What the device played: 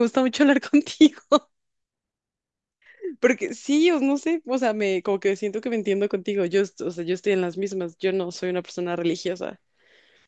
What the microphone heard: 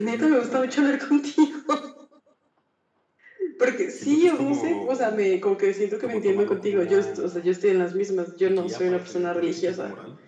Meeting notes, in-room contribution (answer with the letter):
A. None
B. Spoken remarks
B